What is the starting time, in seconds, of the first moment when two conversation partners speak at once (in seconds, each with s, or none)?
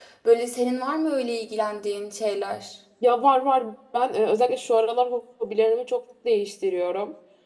none